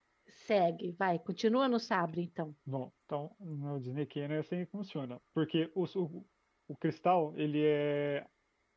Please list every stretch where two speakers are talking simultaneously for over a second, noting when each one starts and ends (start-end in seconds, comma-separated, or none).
none